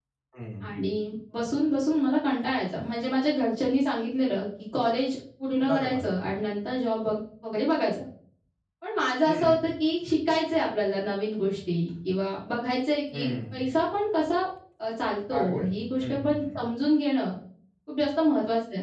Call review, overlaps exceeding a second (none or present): present